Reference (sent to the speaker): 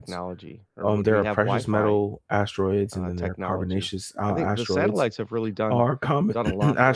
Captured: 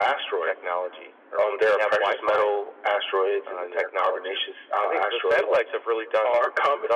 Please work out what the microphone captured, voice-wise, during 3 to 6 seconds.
echo only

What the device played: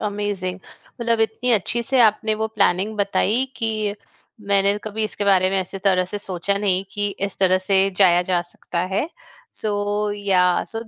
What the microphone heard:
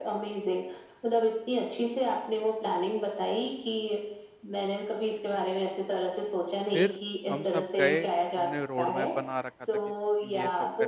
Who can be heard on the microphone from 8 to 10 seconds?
both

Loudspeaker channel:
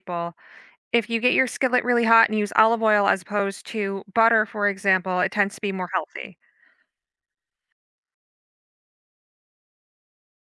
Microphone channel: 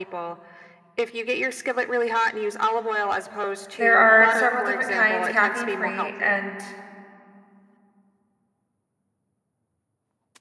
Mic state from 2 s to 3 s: echo only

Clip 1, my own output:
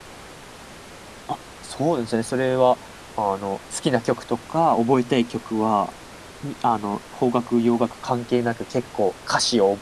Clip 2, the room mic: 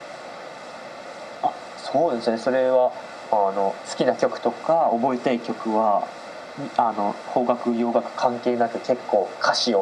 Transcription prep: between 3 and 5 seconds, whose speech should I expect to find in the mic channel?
echo only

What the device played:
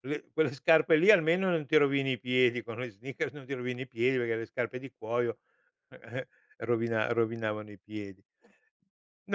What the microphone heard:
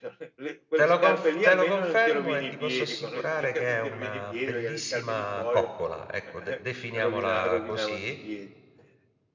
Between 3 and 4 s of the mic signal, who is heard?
both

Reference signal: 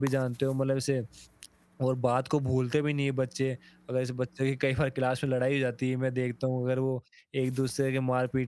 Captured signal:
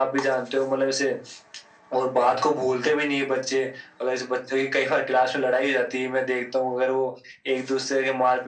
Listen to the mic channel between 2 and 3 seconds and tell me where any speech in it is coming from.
echo only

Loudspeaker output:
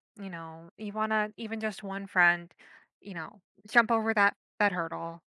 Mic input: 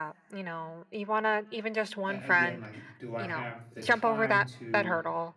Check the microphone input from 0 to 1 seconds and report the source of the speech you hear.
echo only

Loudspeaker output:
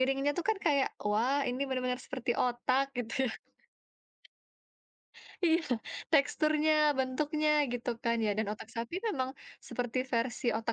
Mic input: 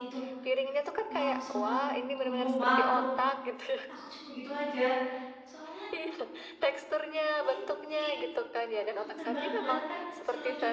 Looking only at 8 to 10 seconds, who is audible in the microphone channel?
both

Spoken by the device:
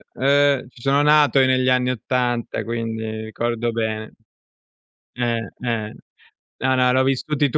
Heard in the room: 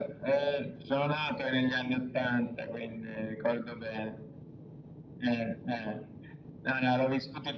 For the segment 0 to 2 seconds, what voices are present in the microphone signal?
echo only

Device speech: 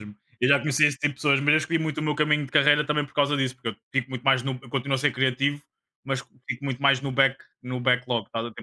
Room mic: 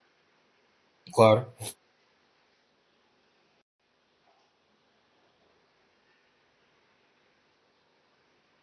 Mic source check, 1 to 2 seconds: user only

